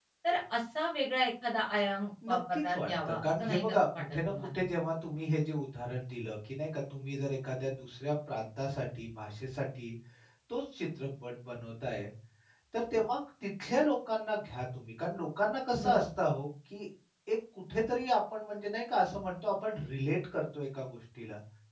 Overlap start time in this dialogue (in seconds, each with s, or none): 2.2 s